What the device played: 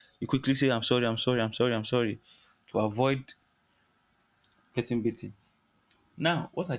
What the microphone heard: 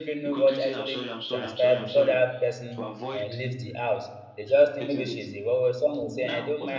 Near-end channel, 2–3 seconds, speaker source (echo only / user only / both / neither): both